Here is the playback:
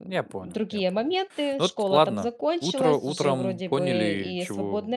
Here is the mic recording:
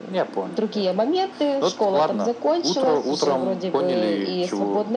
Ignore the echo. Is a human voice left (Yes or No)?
No